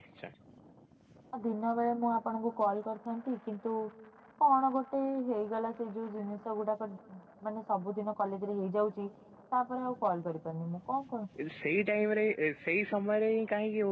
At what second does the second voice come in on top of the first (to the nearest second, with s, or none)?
none